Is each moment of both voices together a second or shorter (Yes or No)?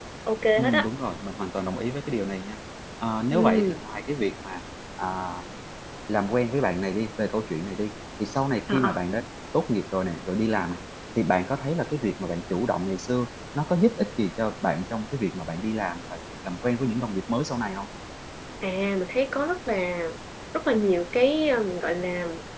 Yes